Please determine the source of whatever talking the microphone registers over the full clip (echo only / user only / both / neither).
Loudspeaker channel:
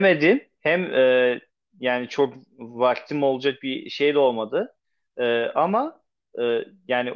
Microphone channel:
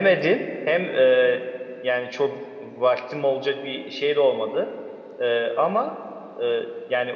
echo only